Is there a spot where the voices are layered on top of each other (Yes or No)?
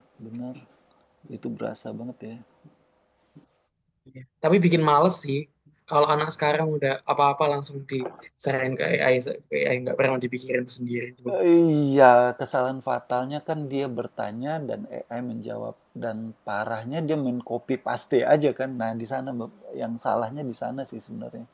No